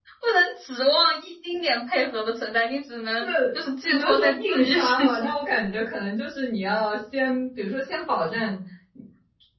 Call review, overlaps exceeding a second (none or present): present